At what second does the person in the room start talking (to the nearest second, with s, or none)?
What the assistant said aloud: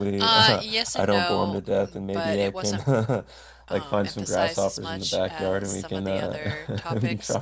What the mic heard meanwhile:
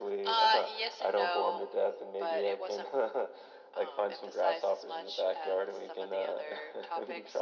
none